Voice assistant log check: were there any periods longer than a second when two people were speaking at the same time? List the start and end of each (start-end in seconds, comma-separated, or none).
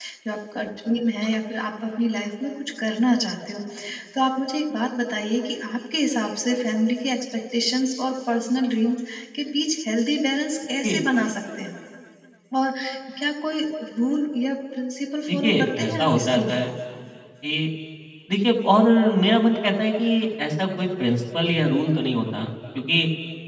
15.3-16.6